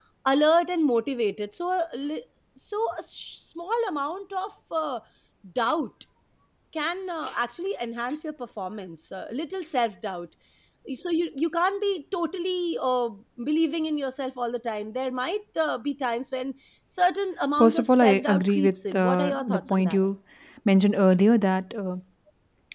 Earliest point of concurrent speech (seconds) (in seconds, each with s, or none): 17.6 s